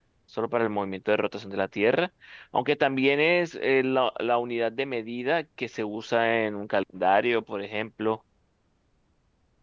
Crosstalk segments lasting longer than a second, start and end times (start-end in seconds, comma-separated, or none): none